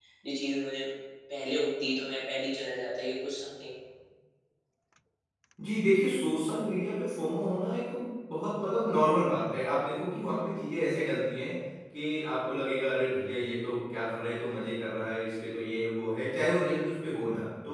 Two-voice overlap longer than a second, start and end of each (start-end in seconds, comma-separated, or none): none